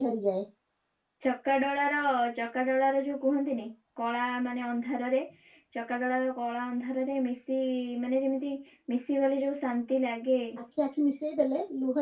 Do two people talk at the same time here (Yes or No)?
No